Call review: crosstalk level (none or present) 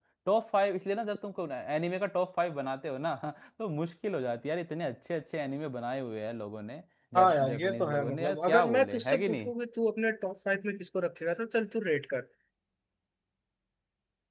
present